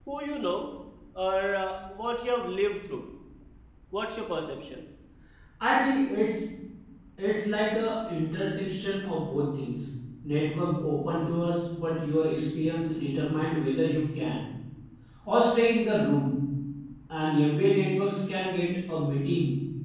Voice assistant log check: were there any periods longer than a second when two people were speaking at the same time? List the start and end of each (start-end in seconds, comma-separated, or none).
none